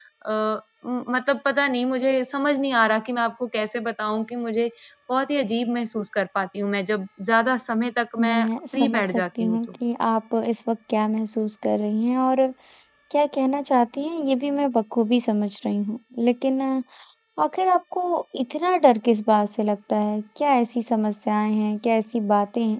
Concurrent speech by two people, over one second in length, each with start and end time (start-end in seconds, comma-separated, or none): 8.2-9.6